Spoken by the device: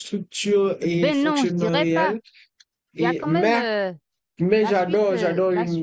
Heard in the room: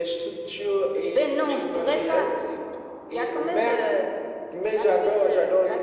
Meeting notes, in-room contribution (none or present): none